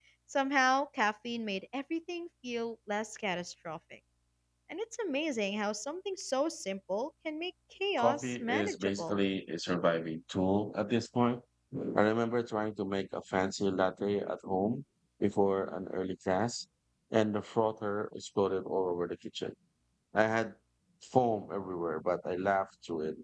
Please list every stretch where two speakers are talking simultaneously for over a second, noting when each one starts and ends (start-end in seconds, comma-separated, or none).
8.0-9.2